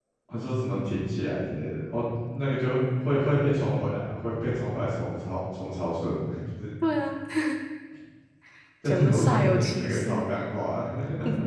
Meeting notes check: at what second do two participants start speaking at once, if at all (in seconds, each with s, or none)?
8.8 s